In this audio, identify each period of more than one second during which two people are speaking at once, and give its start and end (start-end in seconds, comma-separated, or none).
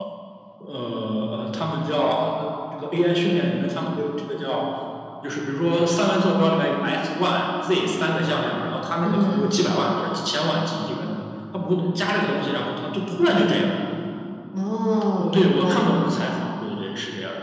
15.2-16.4